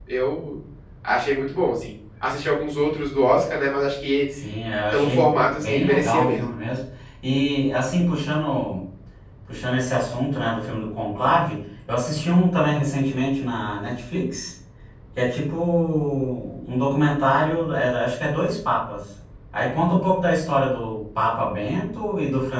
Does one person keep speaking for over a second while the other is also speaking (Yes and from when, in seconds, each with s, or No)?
Yes, from 4.9 s